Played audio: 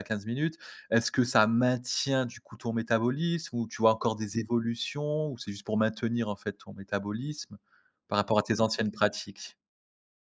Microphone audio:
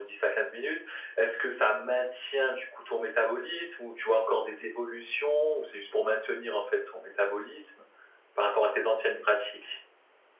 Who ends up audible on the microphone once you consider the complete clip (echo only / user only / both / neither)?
echo only